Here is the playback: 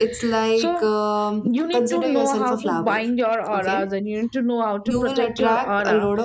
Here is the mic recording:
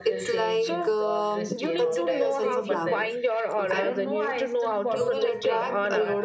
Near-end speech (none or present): present